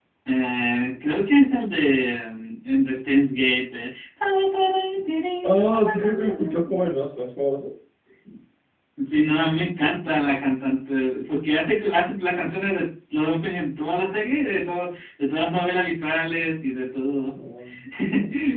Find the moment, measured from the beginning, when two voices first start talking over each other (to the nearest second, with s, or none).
5 s